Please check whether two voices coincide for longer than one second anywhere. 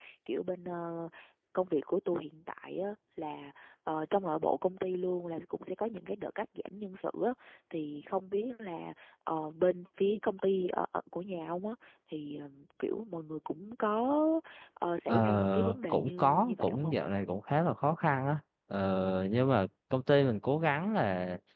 Yes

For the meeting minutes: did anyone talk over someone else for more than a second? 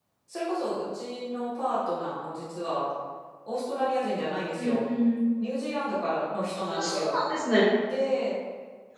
No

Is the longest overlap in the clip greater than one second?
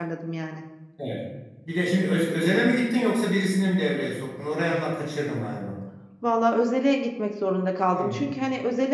No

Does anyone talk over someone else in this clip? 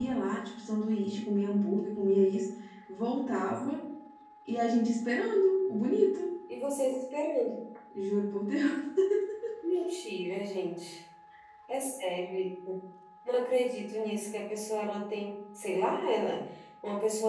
No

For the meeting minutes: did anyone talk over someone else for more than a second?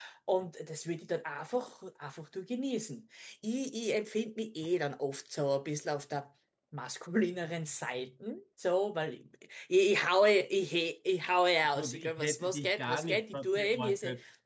Yes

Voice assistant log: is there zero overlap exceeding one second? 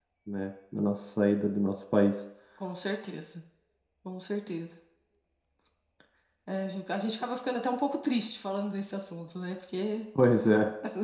Yes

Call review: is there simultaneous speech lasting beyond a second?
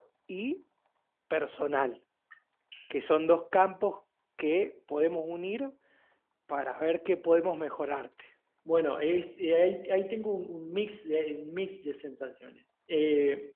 No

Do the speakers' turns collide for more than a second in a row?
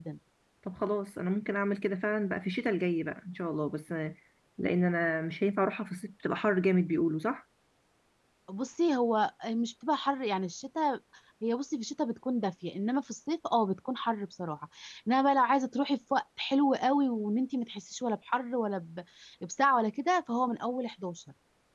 No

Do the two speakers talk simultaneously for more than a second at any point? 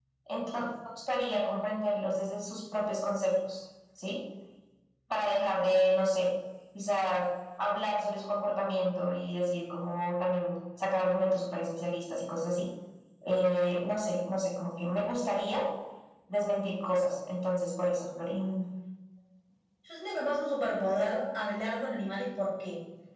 No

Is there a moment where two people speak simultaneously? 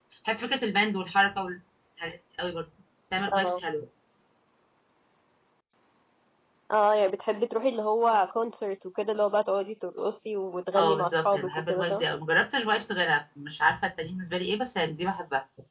Yes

